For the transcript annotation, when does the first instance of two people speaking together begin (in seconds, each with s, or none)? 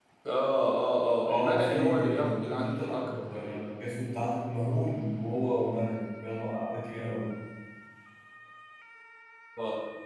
1.3 s